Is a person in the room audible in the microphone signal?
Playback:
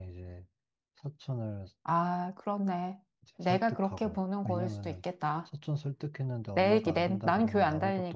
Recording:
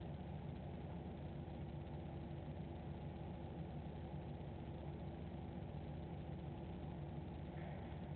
No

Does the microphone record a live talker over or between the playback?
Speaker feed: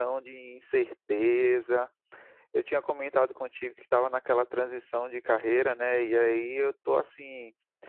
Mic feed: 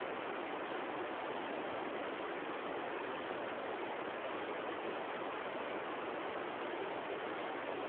No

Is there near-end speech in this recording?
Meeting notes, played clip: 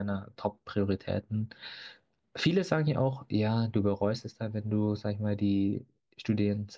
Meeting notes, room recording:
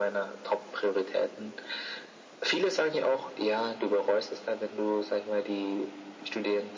No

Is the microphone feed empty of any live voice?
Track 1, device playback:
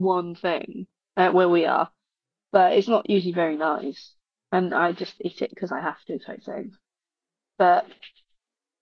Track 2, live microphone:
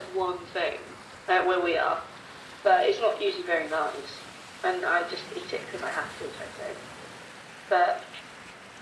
Yes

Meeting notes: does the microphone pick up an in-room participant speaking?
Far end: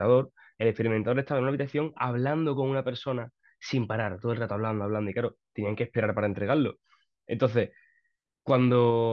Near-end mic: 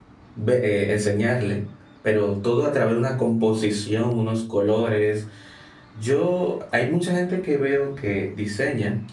Yes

